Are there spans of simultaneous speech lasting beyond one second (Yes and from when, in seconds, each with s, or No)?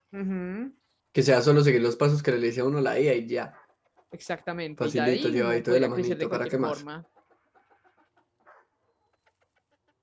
Yes, from 4.8 s